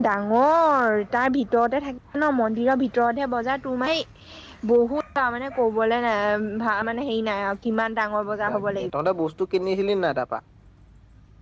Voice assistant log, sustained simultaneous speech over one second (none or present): none